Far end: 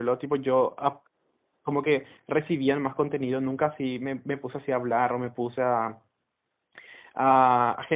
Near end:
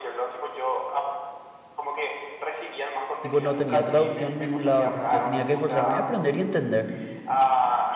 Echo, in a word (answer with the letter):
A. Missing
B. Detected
B